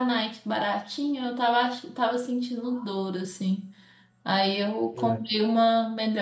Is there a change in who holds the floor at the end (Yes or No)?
No